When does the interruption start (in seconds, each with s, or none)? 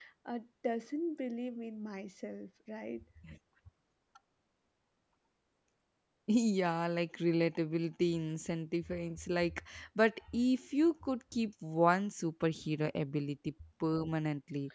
none